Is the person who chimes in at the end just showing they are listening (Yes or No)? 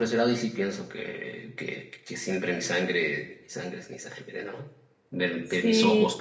Yes